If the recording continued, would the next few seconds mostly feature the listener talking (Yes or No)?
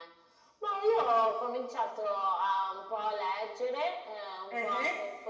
No